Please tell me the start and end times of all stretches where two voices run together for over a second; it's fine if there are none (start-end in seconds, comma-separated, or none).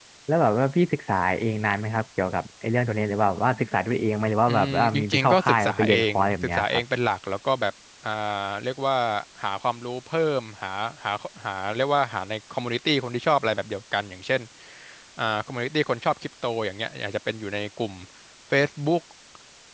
4.5-6.8